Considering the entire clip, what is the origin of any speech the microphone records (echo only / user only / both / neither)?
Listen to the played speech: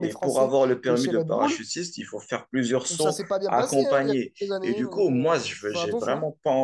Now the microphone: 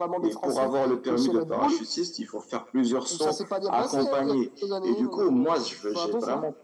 echo only